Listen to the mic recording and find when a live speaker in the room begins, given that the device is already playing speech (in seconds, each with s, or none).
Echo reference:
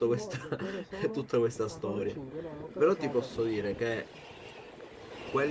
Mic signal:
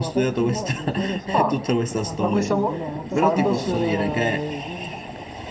1.3 s